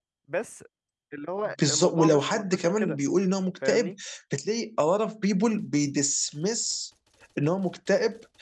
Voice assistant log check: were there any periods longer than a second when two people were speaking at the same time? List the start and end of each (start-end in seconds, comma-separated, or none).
1.6-3.0